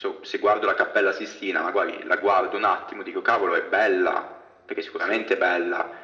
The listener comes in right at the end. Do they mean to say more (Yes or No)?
No